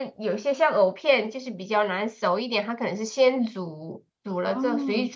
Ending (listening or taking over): listening